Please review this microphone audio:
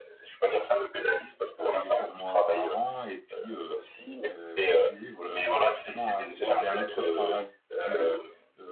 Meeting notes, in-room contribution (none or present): present